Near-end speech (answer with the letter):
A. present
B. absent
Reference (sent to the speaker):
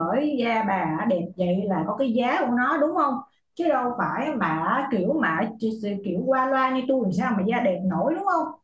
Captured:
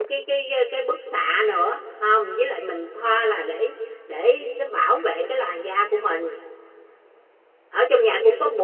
A